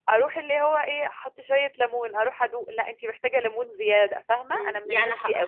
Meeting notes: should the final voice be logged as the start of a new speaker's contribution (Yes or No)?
Yes